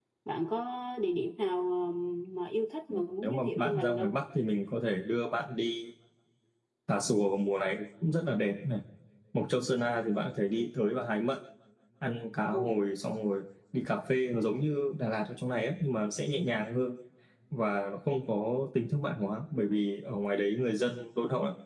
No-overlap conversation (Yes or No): No